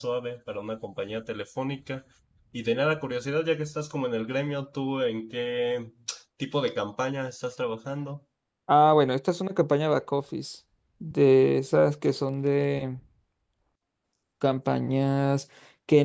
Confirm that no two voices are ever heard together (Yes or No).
Yes